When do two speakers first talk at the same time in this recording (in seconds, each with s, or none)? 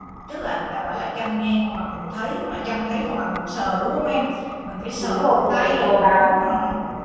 5.0 s